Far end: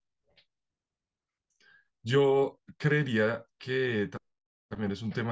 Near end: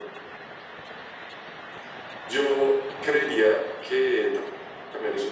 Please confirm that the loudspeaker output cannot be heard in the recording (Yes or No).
No